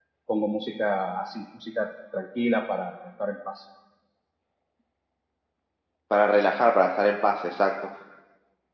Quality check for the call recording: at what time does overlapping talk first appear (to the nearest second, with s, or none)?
none